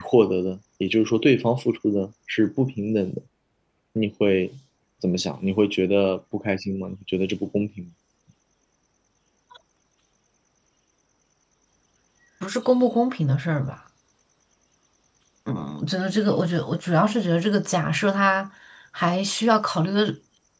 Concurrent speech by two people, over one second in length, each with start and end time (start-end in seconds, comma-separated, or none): none